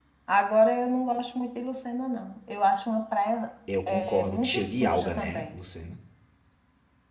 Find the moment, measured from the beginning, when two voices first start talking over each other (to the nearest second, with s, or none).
4 s